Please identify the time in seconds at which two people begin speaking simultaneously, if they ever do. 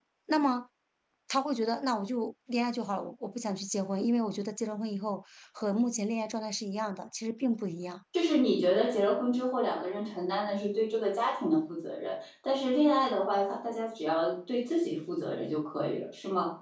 none

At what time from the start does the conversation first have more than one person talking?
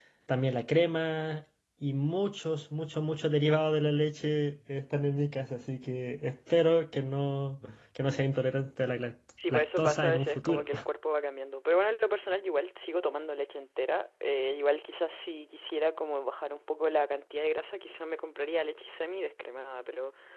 9.4 s

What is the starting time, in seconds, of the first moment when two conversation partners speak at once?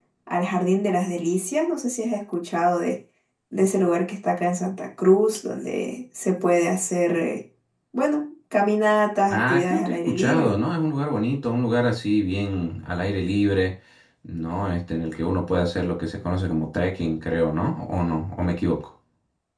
9.3 s

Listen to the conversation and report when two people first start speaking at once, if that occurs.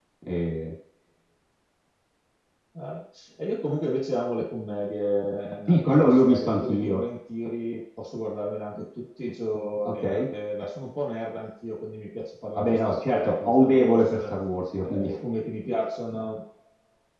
5.7 s

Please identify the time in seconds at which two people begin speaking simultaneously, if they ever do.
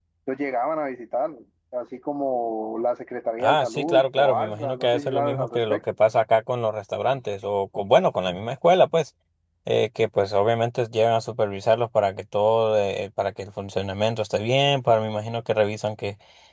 3.4 s

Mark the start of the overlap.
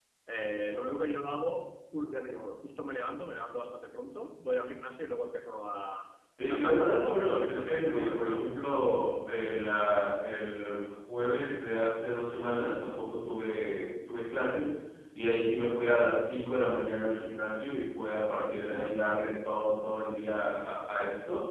6.5 s

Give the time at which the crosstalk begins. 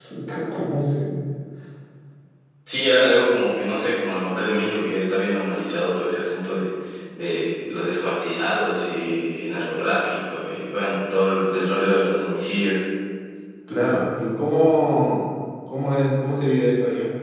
none

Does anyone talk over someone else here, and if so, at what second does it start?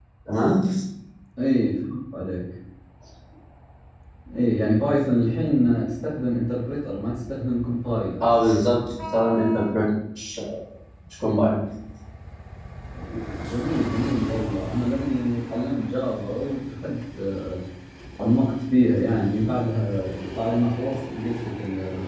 none

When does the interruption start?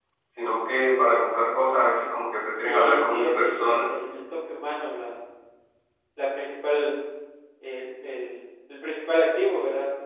2.5 s

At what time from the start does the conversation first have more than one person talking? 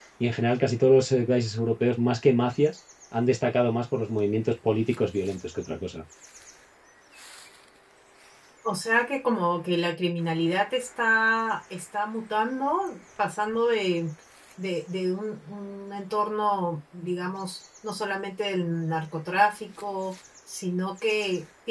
none

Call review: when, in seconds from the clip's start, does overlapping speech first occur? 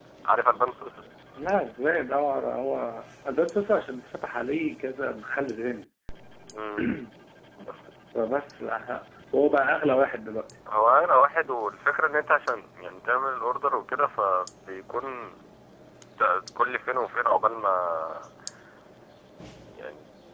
none

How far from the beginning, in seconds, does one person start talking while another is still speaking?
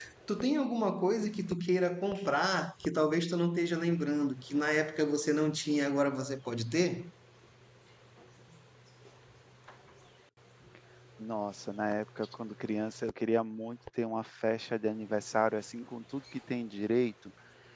none

